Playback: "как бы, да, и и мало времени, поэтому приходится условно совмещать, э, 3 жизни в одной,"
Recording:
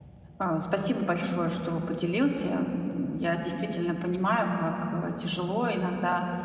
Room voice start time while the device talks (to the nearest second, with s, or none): 0 s